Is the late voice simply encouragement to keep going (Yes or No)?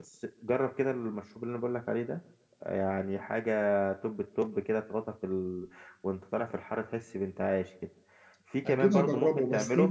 No